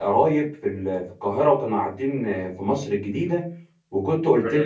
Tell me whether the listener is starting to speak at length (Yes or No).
No